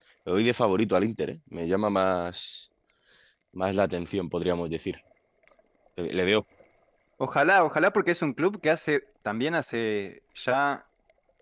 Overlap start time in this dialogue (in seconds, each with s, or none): none